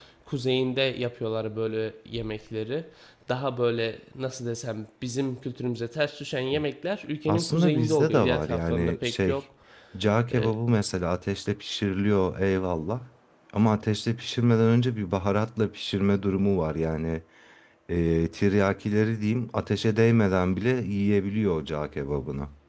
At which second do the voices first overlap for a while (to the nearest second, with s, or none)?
7 s